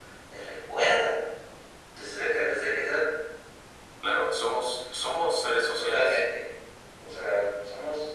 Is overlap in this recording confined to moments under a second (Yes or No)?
Yes